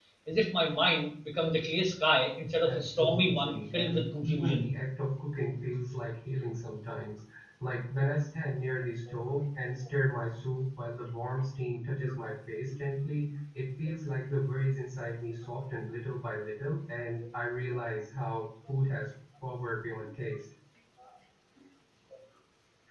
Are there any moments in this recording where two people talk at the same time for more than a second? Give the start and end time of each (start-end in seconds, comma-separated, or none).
2.7-4.7